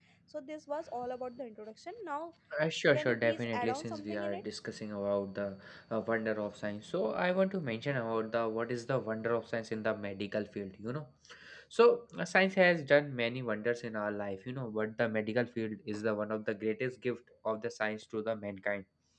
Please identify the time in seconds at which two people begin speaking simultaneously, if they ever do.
2.9 s

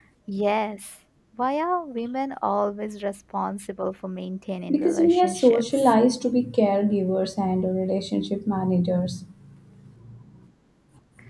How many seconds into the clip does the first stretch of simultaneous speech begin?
4.7 s

